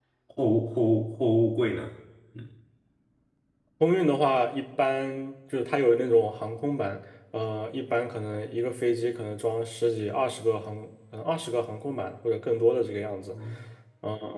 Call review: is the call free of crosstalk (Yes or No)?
Yes